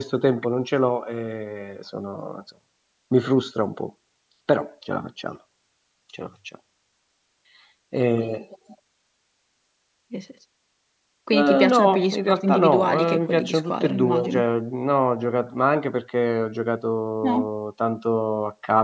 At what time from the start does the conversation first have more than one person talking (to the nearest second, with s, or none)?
11 s